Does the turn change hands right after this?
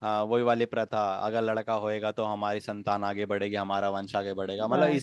No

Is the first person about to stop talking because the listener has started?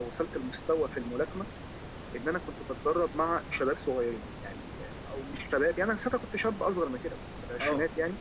No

